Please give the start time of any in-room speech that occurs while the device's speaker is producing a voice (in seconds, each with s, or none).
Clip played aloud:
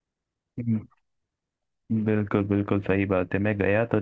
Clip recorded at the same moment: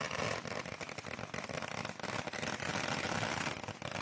none